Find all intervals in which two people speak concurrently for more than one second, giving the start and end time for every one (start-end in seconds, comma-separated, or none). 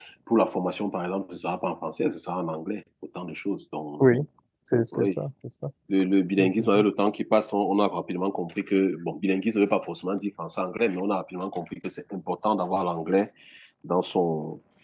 none